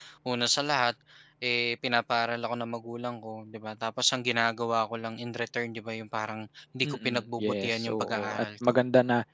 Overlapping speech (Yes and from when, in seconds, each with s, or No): Yes, from 6.8 s